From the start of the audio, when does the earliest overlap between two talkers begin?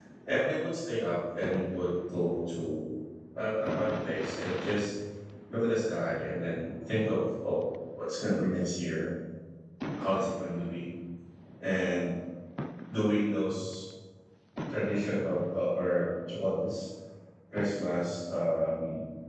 none

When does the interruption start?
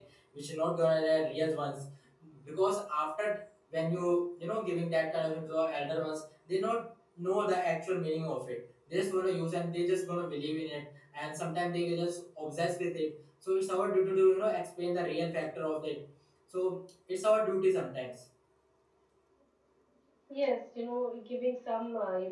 none

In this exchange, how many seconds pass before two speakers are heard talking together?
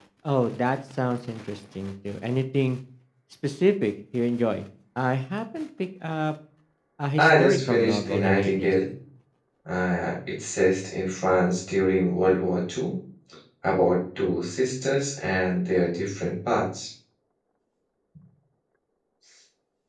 7 s

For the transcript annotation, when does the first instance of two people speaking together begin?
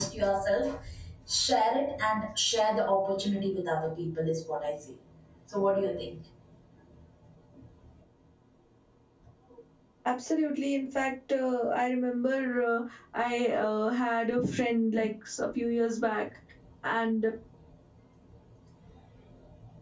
none

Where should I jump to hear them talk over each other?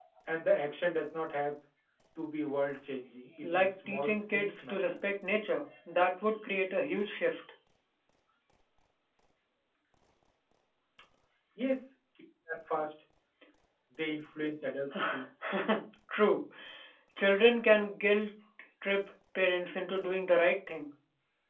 3 s

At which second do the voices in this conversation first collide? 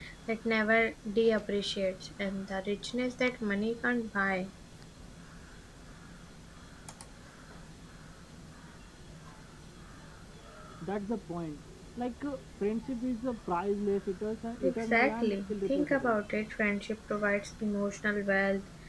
15 s

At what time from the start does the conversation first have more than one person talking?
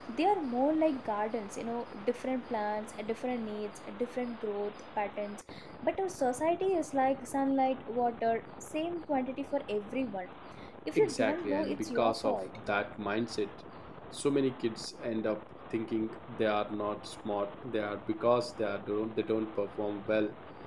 11 s

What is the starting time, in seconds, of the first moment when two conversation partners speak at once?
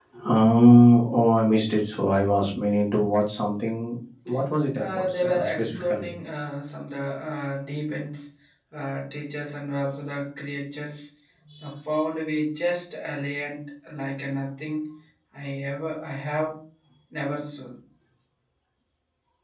5 s

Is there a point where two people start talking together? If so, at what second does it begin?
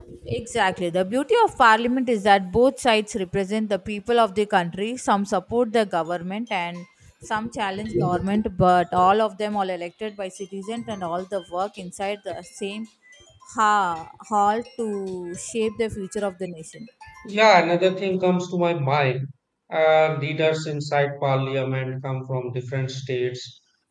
none

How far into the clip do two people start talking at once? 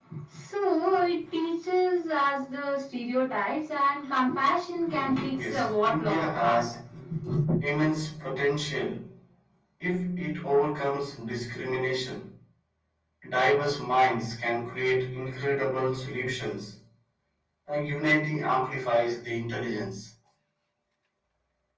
5 s

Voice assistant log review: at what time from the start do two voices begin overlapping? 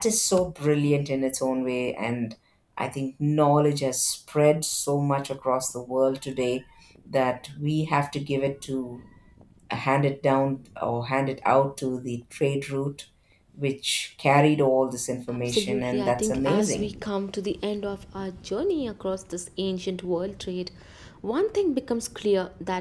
15 s

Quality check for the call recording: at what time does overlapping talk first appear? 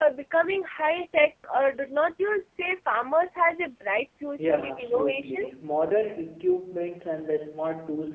4 s

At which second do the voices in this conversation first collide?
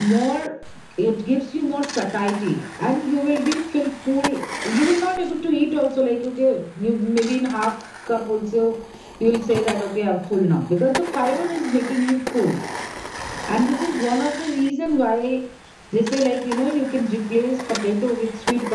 none

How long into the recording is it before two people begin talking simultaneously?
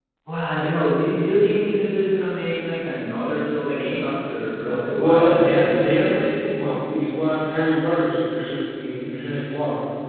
5 s

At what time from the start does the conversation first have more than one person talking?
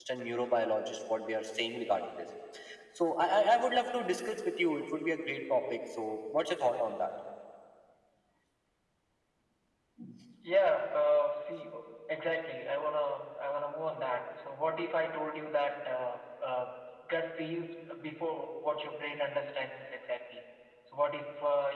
none

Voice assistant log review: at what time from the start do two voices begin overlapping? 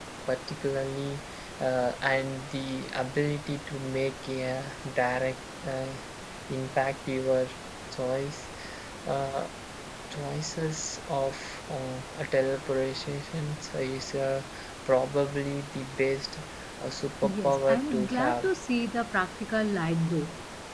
17 s

